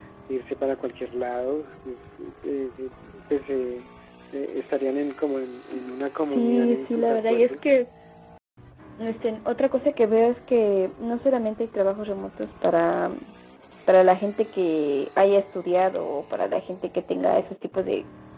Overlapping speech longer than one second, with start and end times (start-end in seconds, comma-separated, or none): 6.3-7.5